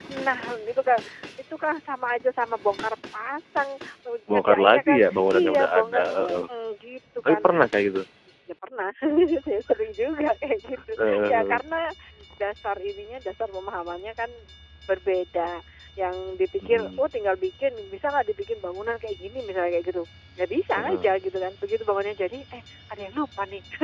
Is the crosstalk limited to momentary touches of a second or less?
No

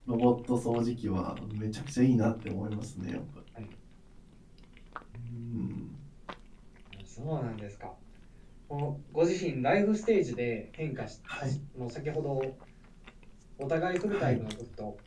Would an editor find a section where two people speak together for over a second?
No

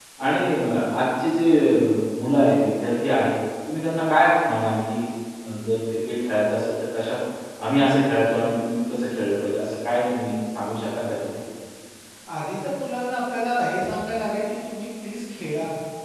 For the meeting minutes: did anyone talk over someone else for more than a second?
No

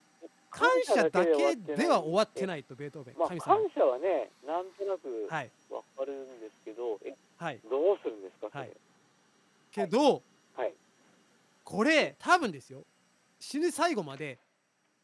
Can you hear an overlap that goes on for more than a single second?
Yes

